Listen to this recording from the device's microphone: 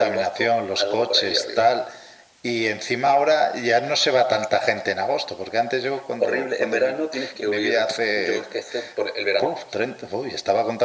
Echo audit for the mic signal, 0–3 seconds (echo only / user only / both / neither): echo only